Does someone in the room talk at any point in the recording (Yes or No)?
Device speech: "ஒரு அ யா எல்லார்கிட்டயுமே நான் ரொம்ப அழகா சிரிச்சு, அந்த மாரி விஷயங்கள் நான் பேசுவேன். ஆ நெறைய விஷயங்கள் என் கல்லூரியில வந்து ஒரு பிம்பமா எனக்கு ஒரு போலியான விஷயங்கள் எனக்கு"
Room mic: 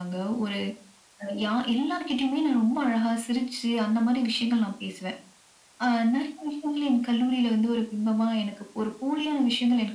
No